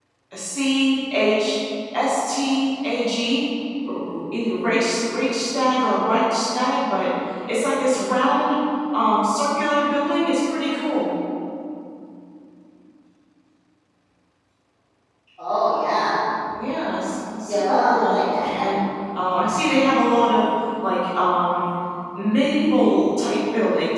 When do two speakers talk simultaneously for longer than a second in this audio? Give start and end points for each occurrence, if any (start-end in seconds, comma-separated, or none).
17.4-18.7